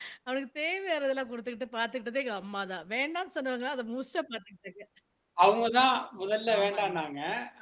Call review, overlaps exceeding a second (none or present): none